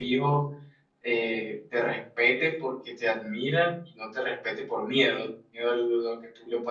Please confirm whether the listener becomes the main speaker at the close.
No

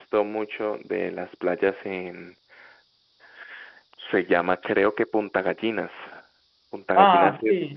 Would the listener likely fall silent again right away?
No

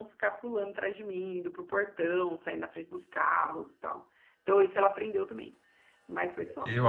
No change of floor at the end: No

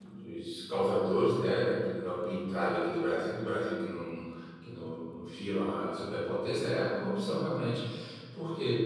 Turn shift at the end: No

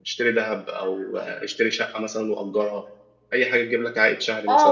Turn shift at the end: Yes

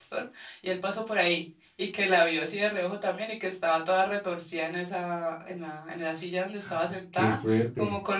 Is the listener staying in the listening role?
Yes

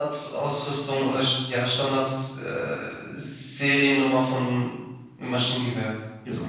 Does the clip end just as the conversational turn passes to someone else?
Yes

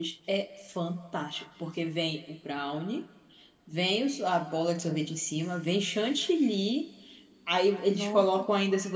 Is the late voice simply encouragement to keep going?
Yes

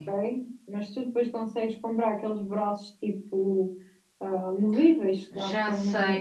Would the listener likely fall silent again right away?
No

